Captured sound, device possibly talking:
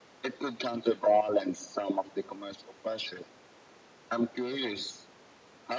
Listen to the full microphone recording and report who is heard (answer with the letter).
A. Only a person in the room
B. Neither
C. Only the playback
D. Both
C